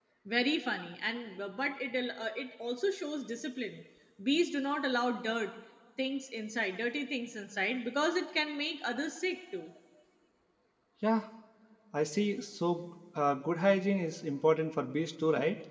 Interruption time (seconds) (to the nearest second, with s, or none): none